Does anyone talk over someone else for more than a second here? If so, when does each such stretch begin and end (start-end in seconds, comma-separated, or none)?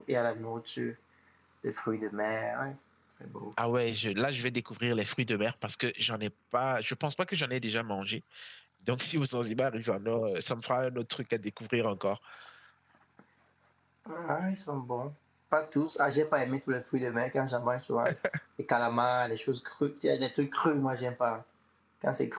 none